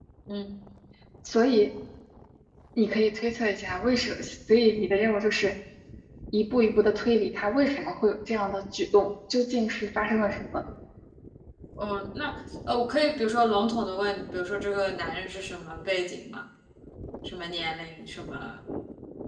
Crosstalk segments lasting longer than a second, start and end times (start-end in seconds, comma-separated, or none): none